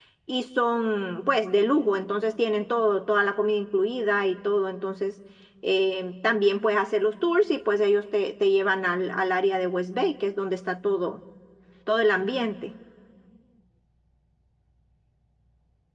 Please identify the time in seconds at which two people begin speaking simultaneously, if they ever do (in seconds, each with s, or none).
none